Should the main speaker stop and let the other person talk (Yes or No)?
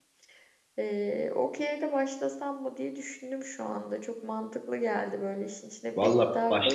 Yes